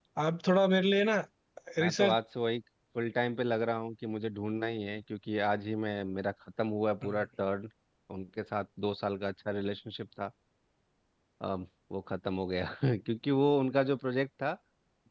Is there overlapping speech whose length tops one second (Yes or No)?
No